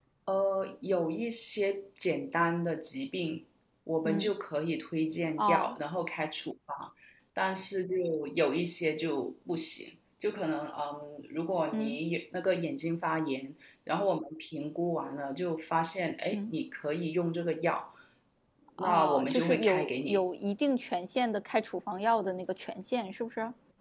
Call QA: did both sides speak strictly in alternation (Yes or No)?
No